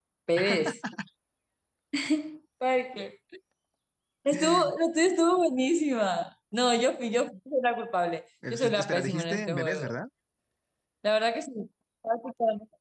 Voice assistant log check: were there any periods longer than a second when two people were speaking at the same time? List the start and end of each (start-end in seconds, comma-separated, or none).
8.5-10.0